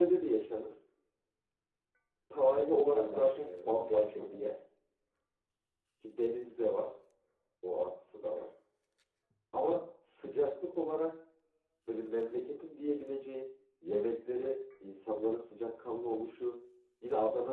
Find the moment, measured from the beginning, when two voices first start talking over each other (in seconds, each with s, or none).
2.9 s